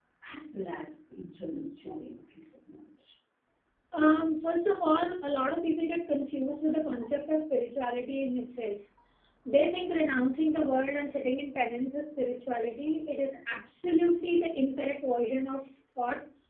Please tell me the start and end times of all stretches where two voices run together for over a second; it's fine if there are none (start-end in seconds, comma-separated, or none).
none